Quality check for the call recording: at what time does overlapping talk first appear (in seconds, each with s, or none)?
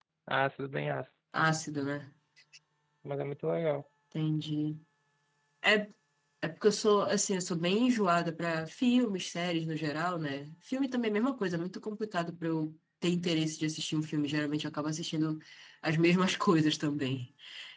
none